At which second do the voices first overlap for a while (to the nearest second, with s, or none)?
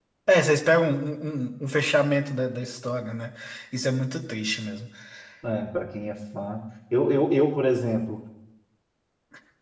none